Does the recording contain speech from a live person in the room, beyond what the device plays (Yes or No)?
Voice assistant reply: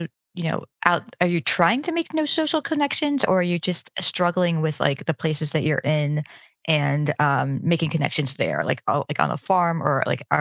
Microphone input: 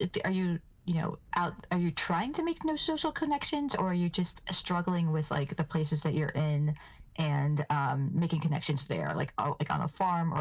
No